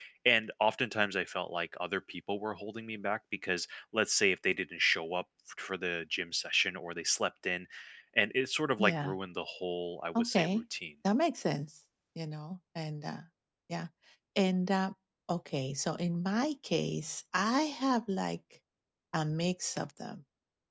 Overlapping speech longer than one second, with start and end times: none

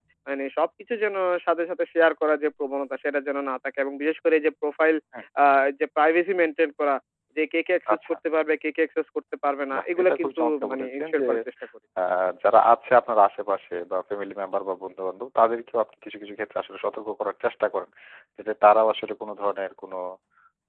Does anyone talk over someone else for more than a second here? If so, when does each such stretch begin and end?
9.7-11.2

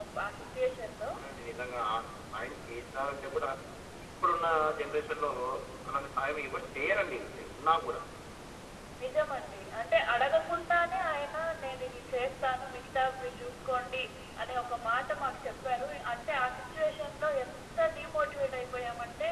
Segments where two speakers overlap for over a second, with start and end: none

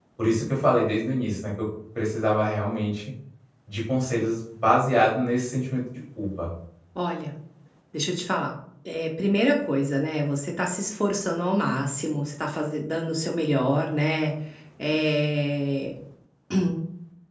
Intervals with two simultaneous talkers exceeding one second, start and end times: none

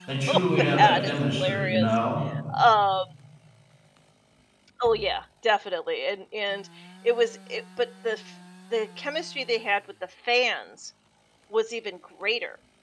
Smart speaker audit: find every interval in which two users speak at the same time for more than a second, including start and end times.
0.6-1.9

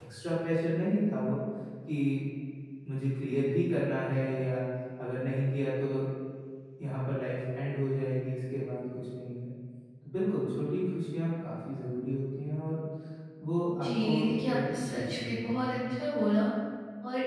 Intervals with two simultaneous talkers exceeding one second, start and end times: 13.8-15.8

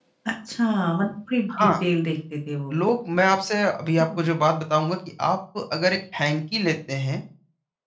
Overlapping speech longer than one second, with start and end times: none

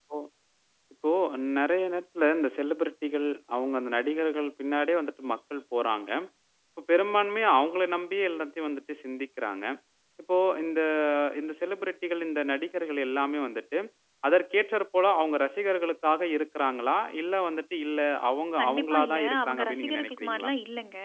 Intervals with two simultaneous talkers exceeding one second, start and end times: 18.6-20.5

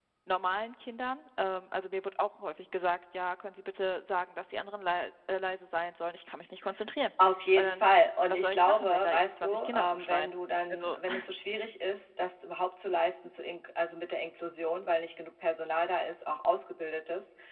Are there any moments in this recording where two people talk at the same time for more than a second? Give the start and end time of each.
8.3-10.3

